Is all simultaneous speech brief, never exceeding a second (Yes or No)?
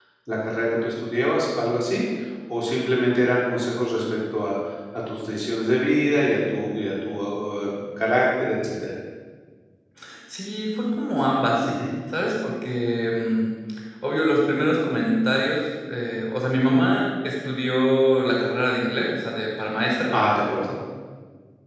Yes